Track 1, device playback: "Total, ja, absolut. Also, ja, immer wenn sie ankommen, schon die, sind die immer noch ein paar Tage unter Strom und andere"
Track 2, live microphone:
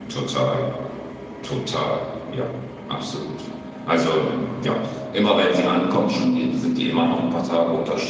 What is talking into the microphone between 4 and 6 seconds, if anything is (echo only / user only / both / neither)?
echo only